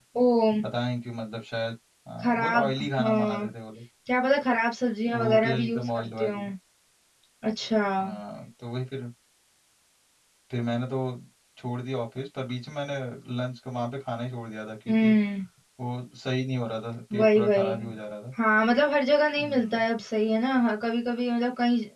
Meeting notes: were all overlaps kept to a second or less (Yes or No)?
No